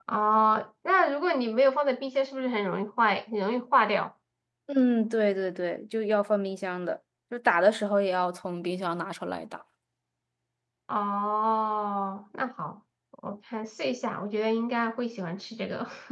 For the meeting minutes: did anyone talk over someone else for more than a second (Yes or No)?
No